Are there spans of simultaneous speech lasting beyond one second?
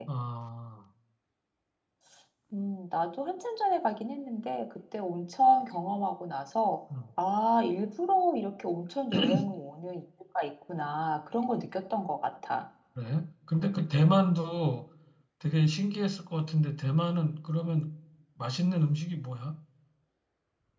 No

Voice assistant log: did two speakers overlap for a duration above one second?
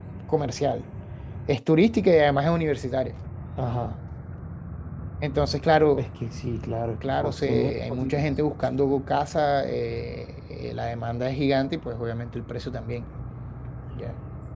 Yes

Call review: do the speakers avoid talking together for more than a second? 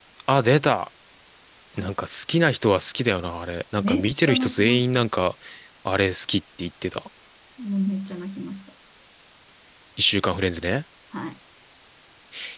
No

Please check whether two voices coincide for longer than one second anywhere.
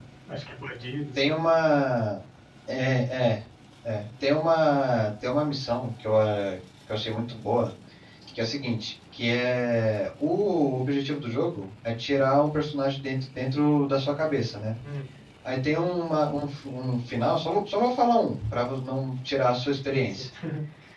No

